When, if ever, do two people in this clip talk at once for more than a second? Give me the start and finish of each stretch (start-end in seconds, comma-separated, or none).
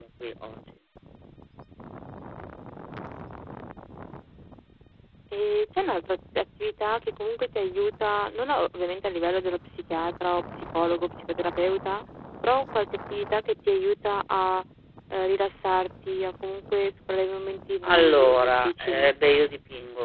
17.9-19.1